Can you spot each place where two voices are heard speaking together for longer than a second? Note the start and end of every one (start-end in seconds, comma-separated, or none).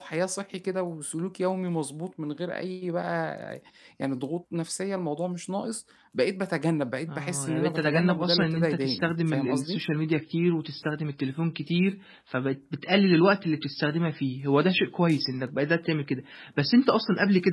7.1-9.8